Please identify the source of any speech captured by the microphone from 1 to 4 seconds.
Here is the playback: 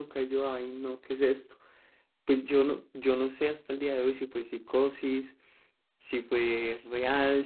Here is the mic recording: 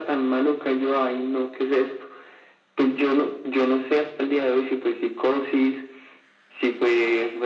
echo only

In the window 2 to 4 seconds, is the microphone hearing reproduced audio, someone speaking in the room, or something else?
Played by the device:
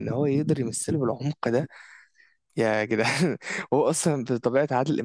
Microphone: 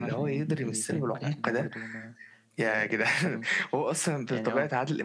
both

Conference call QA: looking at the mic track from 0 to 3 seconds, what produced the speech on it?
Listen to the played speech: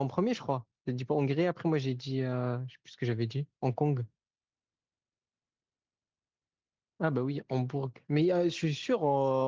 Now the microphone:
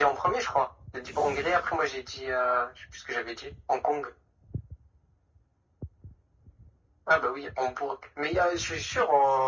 echo only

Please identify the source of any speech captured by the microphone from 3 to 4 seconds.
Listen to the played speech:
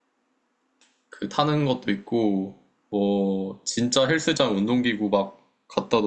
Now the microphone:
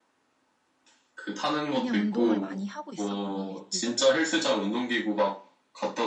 both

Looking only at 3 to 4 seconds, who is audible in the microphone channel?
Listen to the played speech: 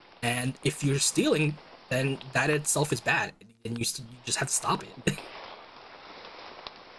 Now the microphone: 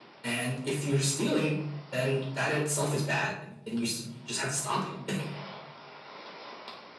echo only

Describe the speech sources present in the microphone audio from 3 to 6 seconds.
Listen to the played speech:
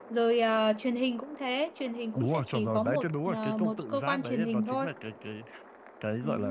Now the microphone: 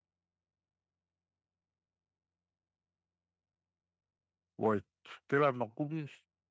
user only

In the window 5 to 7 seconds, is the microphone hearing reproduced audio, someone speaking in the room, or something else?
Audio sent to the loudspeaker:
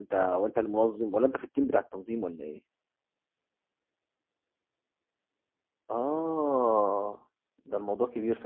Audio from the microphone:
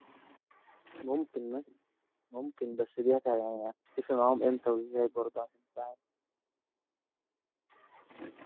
user only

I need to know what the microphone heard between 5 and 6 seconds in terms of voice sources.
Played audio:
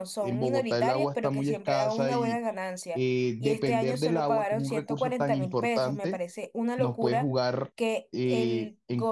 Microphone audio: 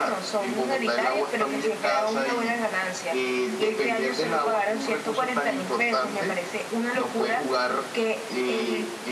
echo only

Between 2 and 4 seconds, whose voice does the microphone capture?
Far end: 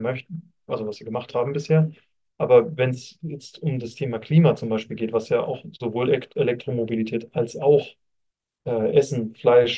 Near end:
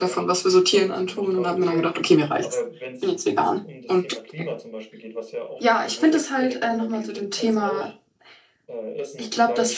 both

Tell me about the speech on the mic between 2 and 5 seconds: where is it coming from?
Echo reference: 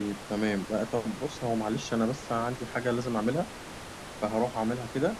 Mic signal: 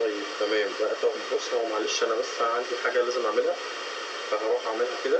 echo only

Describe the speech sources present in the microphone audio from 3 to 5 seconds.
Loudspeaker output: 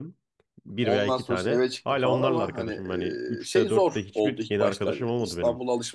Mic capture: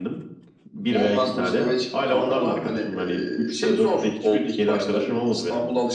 echo only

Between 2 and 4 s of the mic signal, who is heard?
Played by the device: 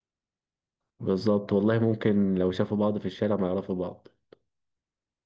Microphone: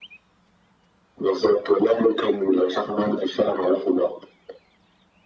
echo only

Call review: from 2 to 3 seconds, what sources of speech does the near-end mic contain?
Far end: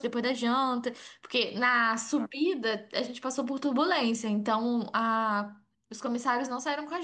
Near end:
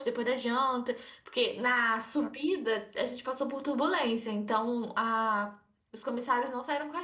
echo only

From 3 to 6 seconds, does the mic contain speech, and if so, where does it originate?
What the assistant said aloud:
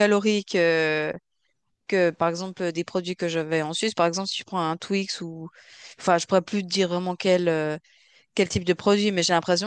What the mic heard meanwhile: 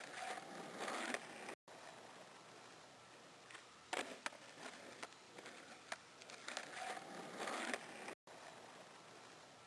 neither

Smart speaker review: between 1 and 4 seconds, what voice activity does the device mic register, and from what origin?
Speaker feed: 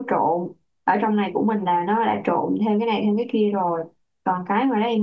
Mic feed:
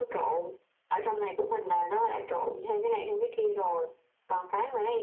echo only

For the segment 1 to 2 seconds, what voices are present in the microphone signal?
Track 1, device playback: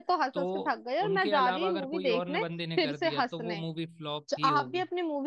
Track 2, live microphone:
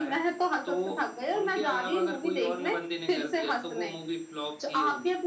echo only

